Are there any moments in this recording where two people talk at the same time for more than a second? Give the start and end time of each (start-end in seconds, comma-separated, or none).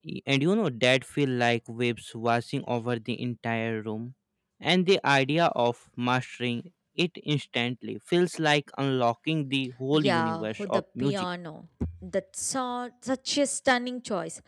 9.9-11.3